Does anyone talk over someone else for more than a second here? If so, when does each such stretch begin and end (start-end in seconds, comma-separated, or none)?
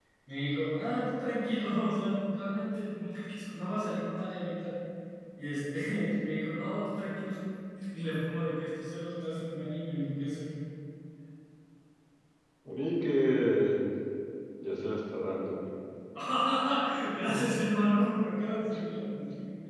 none